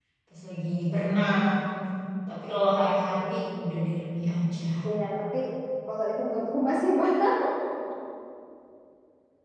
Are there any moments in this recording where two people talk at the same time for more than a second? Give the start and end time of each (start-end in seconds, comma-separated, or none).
none